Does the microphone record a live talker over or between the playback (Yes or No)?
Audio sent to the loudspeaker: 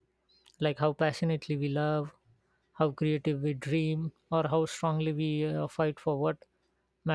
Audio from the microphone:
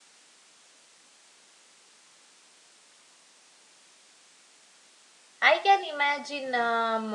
Yes